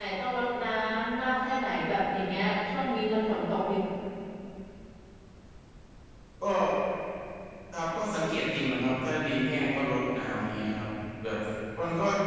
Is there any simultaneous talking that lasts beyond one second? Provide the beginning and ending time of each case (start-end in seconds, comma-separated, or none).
none